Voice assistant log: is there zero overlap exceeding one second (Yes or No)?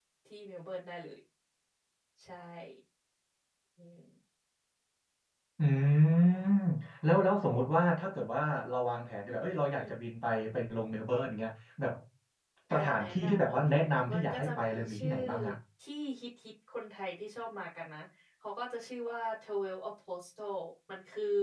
No